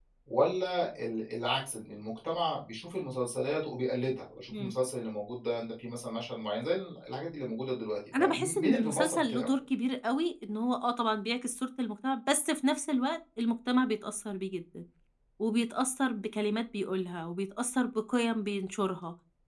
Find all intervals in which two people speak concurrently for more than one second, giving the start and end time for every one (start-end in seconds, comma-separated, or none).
8.2-9.5